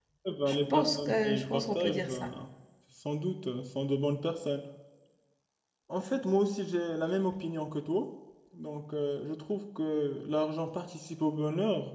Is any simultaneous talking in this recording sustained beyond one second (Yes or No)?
Yes